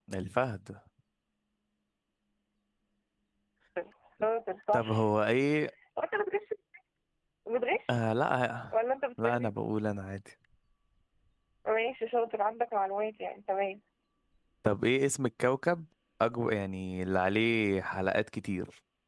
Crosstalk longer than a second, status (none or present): none